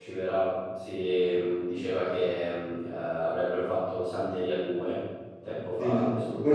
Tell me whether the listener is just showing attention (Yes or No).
No